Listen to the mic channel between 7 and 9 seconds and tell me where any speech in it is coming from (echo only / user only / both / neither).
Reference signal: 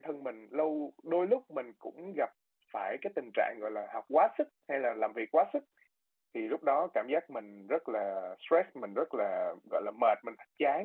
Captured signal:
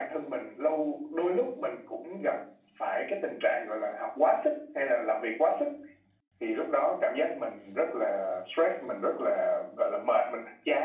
echo only